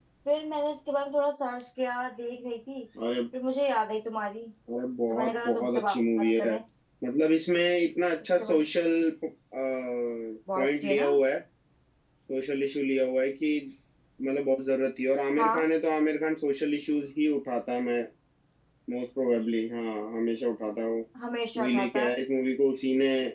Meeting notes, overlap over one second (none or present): present